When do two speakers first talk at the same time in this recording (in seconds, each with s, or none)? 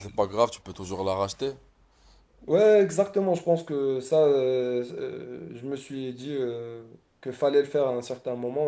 none